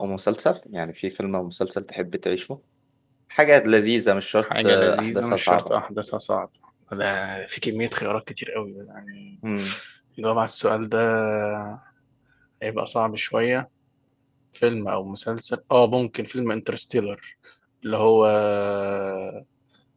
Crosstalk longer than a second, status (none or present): present